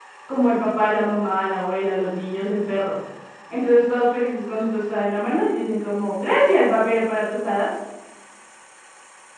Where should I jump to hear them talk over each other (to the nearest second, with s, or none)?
none